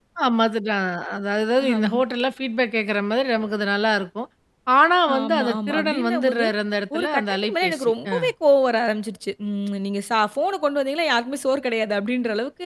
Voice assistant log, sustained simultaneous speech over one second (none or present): present